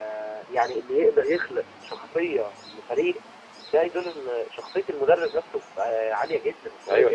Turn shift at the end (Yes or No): Yes